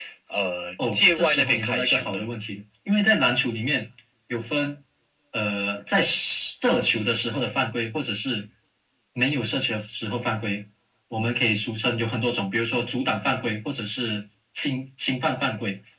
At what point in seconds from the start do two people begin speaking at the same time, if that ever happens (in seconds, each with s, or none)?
0.9 s